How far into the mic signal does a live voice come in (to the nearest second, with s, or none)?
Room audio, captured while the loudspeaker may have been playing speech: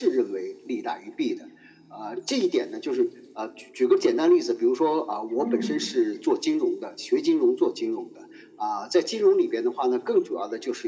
5 s